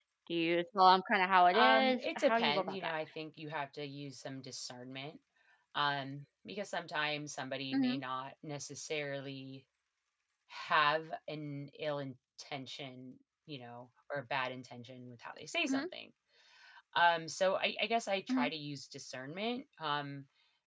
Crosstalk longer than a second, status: present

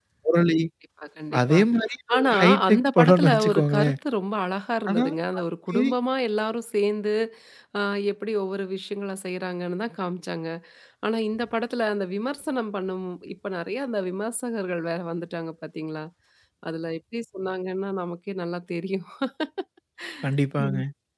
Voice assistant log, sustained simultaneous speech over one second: present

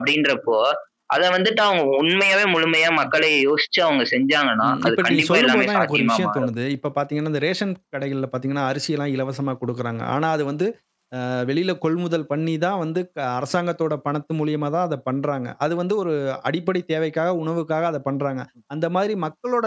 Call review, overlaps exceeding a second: present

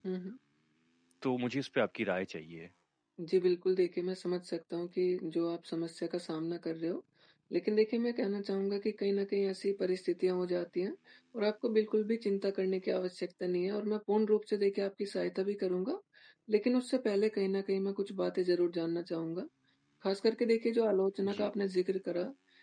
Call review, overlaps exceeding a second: none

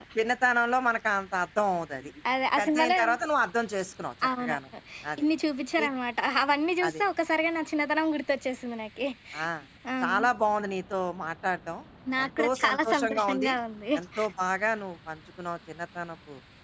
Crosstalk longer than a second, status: present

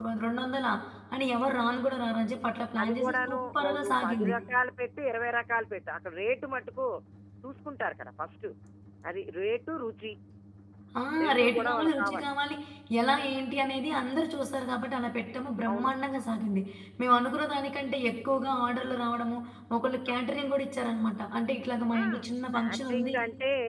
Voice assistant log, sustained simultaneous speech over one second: present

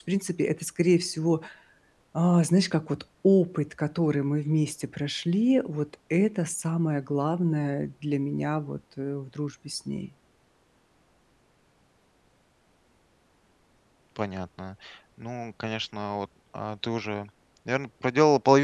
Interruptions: none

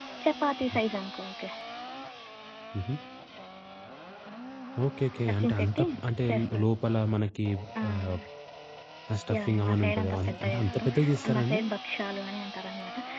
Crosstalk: present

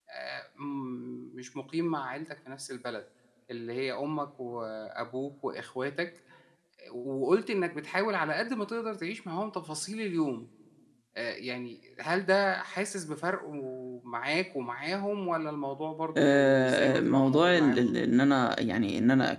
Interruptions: present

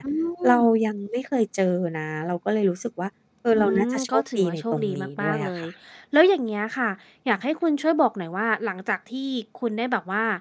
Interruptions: present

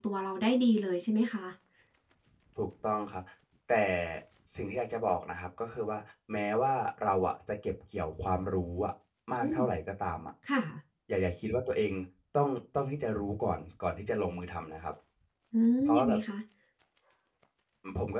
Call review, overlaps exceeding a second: none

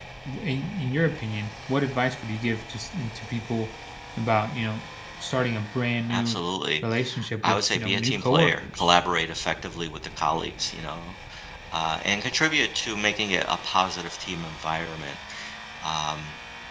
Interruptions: present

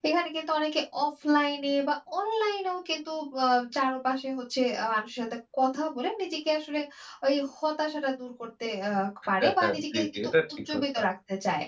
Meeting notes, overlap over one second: present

